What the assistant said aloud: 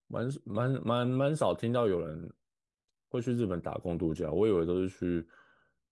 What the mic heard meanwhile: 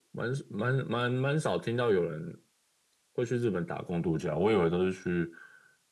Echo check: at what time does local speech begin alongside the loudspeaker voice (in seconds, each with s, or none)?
none